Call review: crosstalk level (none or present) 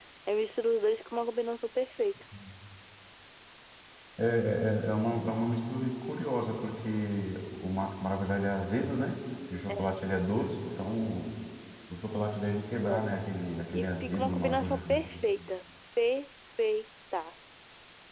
present